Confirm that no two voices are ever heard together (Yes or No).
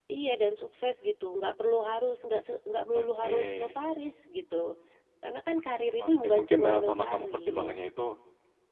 No